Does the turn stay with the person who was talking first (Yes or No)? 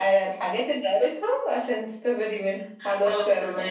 No